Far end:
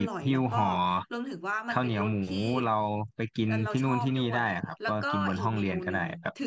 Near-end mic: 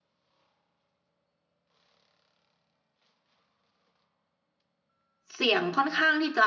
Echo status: none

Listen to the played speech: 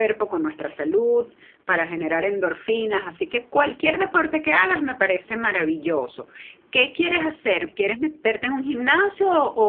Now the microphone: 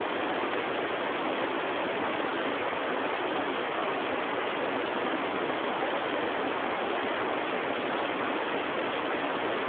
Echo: none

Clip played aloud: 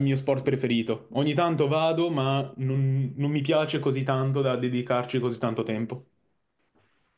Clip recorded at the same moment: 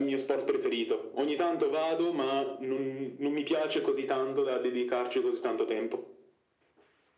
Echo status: present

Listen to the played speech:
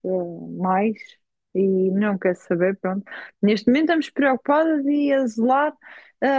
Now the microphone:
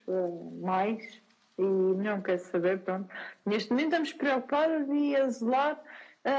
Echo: present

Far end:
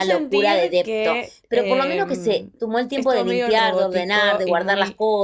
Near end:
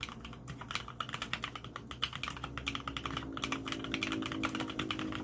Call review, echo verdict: none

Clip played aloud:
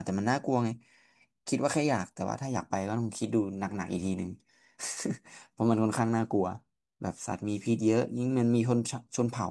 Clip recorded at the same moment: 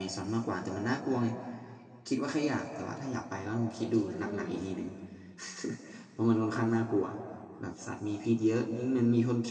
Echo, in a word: present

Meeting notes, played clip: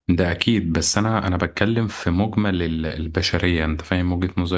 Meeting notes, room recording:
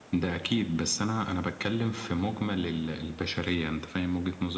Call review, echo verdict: present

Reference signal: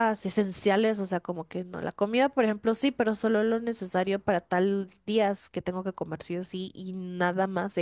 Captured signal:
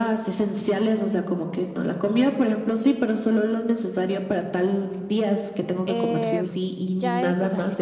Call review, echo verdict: present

